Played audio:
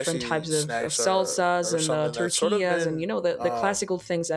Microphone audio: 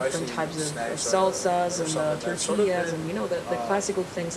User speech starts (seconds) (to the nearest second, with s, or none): none